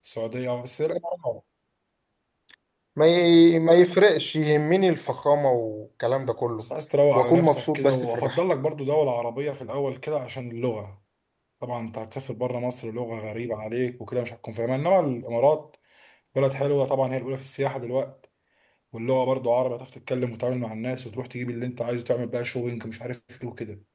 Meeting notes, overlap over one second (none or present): present